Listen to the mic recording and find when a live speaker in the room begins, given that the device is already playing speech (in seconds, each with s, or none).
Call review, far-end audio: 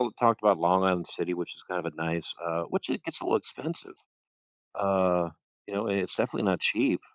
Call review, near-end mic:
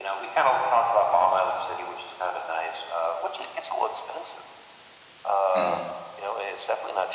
5.5 s